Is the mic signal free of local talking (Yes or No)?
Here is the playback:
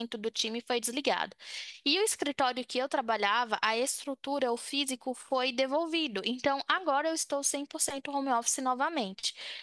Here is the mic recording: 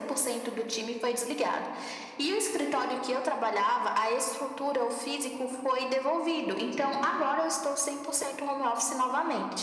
Yes